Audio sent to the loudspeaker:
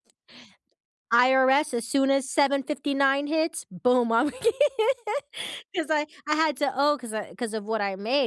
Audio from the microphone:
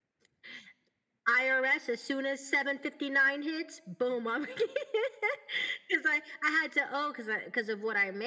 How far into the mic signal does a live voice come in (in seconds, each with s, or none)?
none